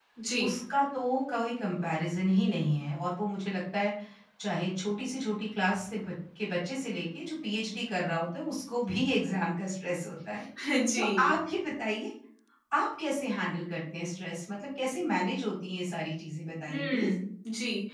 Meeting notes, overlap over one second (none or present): none